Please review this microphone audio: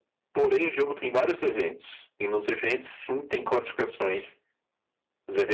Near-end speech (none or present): none